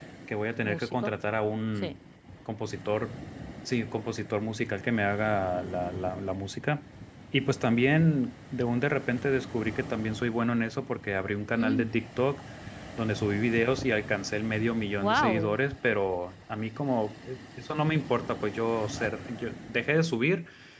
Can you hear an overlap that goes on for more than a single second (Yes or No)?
No